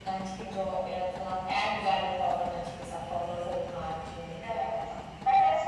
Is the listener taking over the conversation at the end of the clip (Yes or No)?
Yes